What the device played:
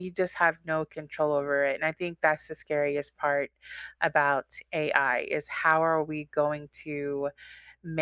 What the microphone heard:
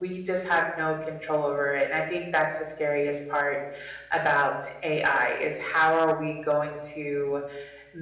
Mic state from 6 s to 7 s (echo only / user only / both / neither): echo only